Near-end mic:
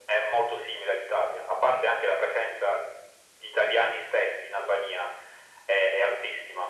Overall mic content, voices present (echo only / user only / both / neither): echo only